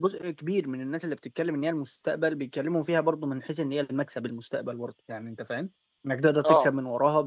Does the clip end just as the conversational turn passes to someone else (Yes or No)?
No